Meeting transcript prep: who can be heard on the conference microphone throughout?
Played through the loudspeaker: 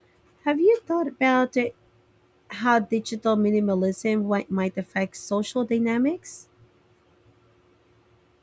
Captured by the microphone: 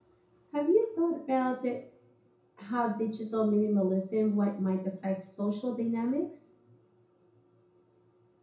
echo only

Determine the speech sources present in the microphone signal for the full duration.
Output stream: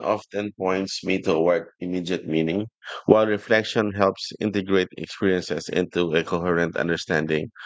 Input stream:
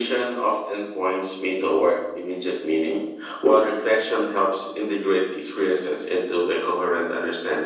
echo only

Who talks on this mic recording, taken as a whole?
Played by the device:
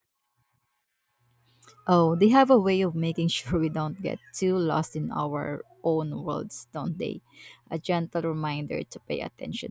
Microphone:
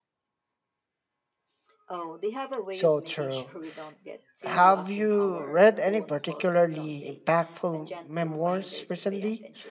both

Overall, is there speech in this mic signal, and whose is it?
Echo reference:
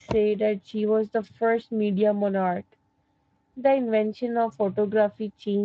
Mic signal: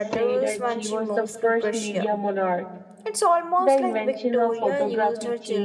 both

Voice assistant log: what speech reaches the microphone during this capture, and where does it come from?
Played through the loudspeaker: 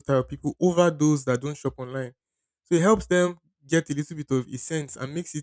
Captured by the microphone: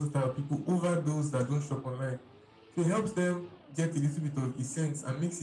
echo only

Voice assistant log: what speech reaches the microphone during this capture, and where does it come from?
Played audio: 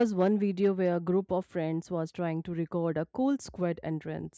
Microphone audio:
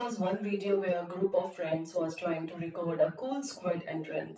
echo only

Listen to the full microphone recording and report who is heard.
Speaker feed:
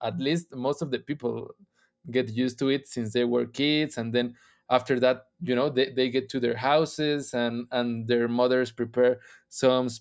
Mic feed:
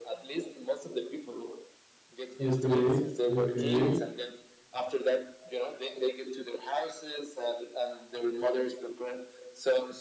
both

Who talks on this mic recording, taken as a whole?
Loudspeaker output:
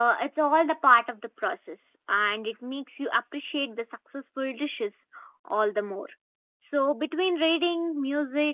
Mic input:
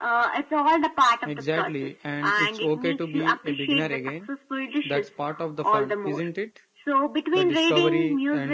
both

